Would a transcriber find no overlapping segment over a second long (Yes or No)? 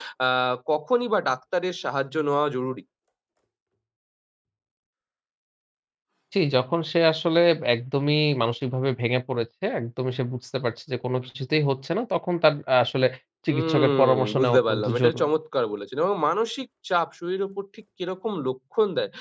No